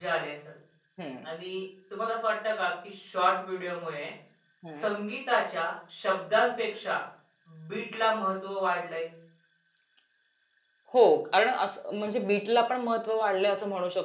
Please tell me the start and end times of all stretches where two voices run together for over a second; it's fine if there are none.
none

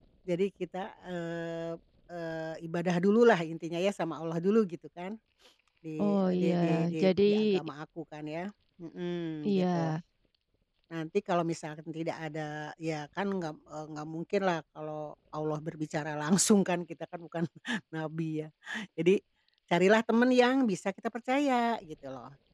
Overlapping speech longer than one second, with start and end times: 6.0-7.6

